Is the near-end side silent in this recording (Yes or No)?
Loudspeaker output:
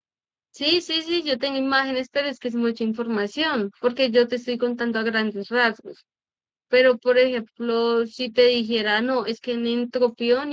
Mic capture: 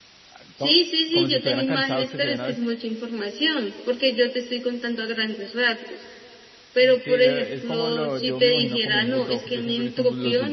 No